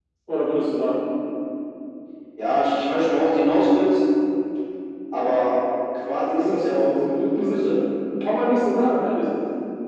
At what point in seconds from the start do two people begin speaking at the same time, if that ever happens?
6 s

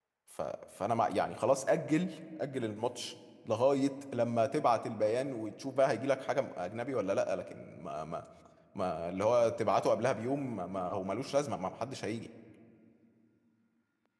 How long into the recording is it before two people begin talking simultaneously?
none

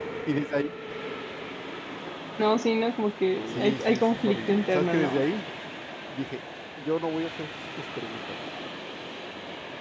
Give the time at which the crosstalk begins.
3 s

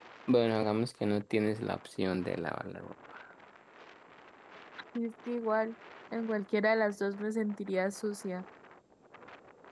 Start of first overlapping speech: none

